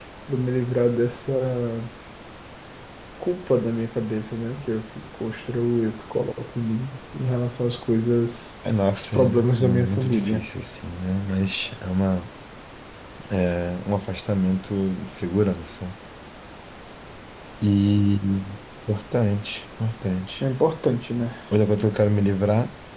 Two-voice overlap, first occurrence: 9.1 s

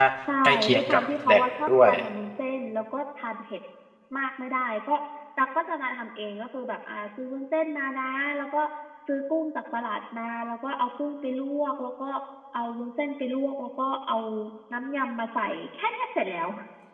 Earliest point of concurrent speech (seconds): 0.7 s

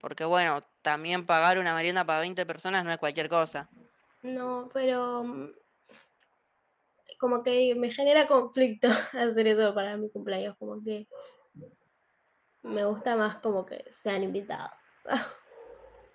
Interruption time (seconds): none

